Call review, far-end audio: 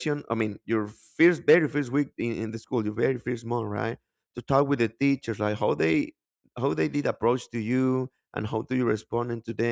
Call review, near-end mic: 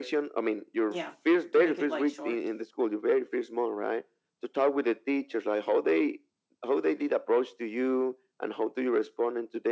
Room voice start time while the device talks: 0.8 s

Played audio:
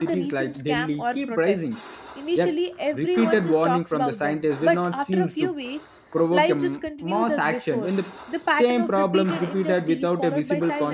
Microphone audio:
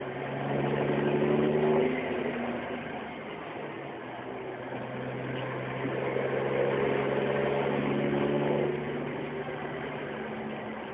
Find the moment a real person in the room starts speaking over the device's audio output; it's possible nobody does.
none

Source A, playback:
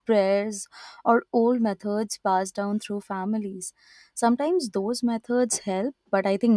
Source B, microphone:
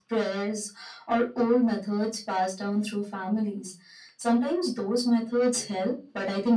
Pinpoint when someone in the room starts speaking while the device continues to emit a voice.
none

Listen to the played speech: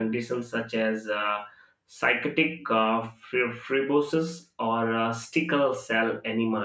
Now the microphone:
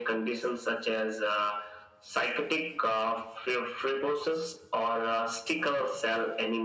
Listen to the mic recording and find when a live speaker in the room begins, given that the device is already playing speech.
none

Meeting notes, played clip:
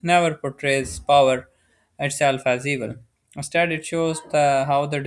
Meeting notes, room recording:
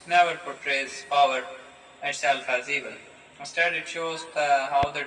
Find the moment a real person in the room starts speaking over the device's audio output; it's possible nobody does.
none

